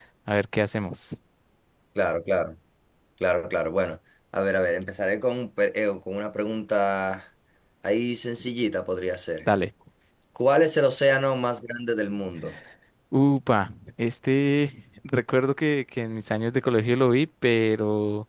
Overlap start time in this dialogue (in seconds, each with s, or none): none